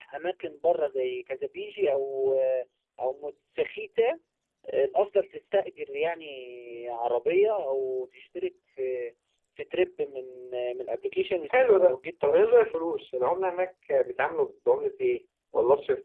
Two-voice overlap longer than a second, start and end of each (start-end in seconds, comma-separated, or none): 11.5-12.7